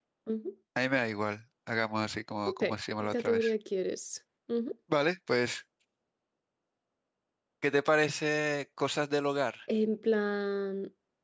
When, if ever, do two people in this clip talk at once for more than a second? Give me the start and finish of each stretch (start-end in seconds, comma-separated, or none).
none